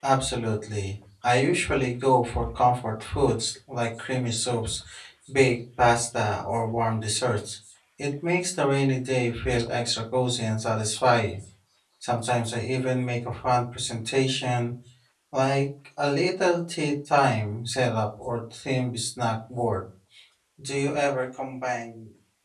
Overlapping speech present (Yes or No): No